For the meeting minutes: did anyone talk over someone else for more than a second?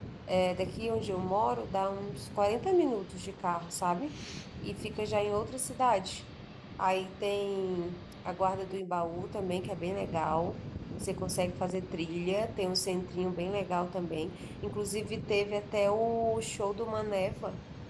No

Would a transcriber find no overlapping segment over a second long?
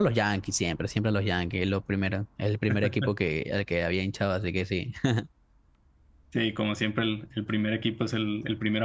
Yes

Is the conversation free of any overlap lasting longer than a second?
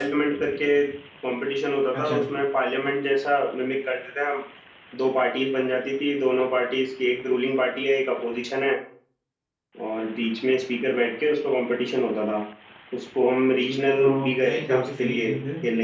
No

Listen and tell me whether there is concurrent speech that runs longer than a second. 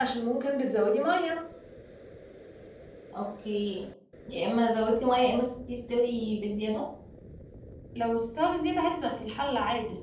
No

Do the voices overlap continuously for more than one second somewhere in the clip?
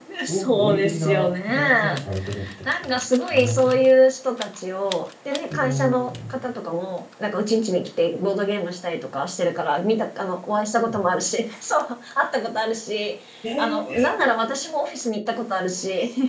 Yes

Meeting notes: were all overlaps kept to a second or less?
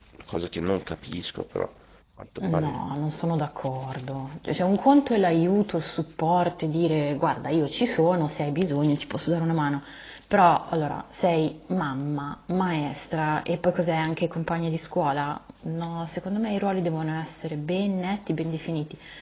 Yes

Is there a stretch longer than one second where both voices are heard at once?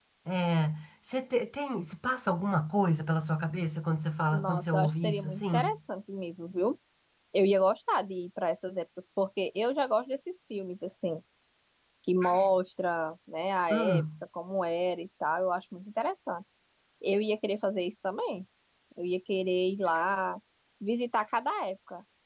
Yes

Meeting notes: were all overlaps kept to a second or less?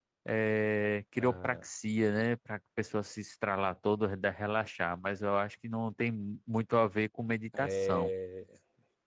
Yes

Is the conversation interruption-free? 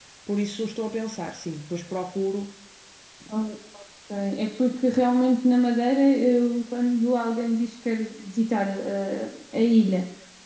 Yes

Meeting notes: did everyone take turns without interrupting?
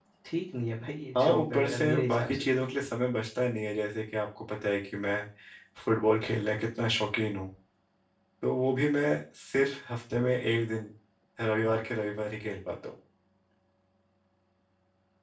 No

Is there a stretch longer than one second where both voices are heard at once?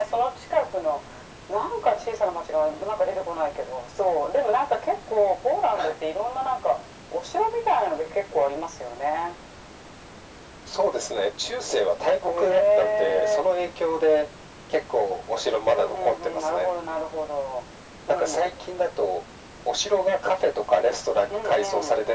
Yes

